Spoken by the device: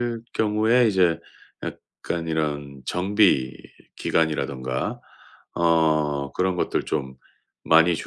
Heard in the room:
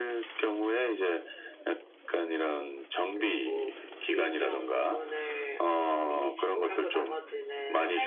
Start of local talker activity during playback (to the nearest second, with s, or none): 3 s